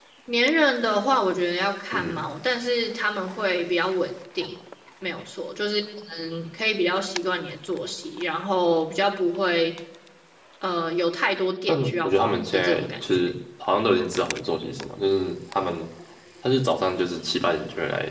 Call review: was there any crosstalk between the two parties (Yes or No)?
Yes